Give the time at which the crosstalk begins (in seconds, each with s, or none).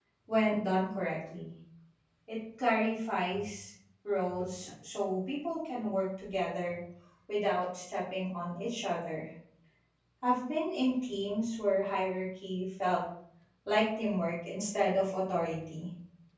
none